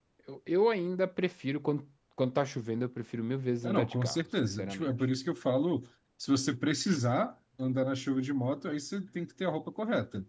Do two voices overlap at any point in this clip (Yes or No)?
Yes